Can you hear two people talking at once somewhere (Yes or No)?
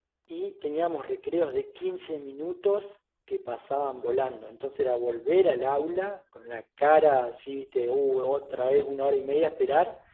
No